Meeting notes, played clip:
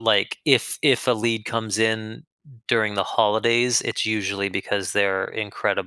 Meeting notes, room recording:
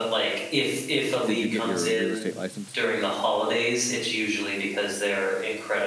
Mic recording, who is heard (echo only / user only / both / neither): both